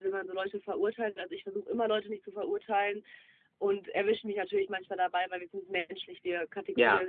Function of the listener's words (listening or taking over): listening